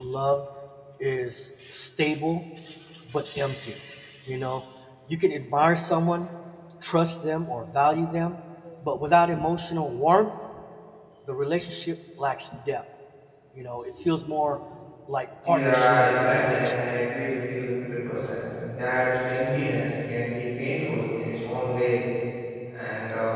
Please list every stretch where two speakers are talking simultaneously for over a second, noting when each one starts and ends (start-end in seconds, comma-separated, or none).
15.4-16.7